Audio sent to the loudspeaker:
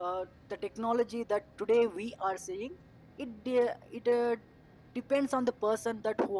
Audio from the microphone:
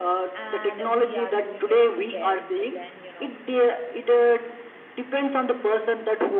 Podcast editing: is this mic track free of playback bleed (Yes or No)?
No